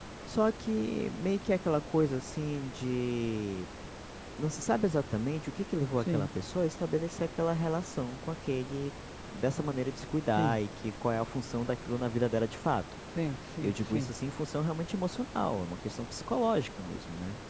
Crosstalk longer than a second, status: none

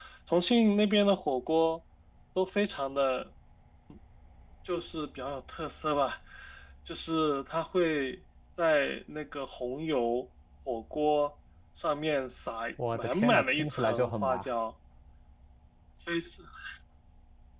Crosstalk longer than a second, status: present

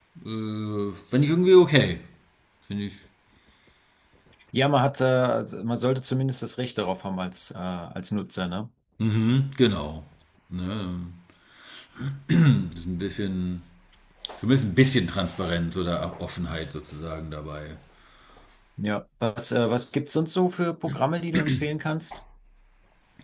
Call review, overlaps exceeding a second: none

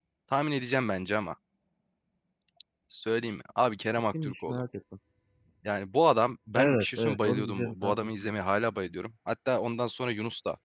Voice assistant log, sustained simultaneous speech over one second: present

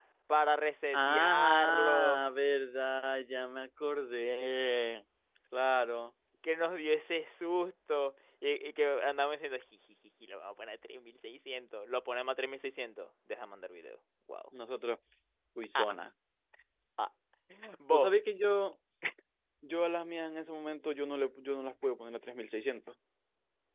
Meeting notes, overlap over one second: present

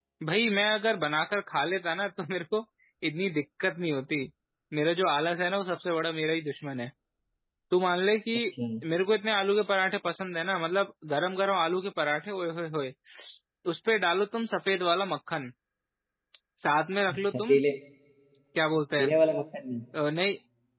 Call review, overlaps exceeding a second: none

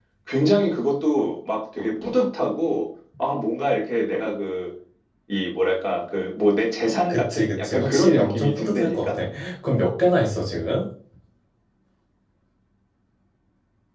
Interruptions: present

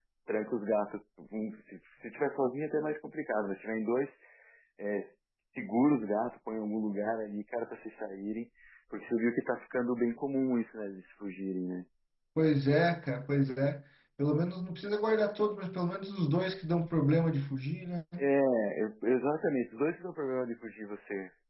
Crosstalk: none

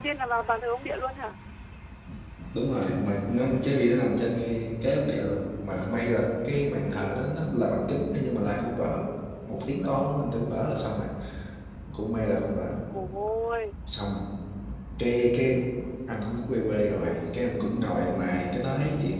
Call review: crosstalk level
none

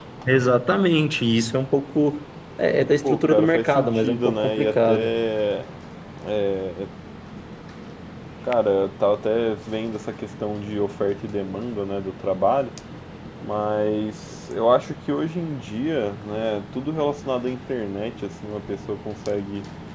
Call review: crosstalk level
present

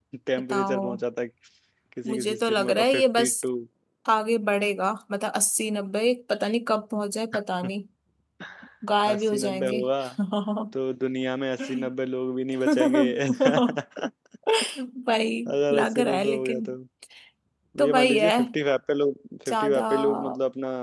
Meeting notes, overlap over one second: present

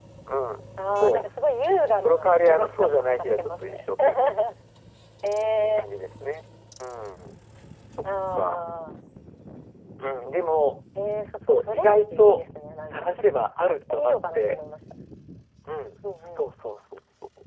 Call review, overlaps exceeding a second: present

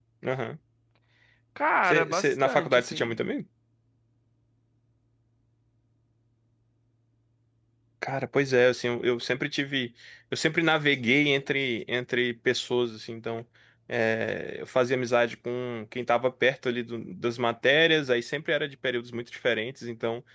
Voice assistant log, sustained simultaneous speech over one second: present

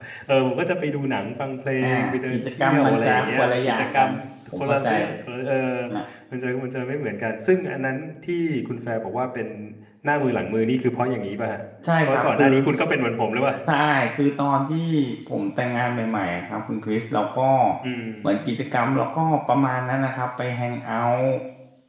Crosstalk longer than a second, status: present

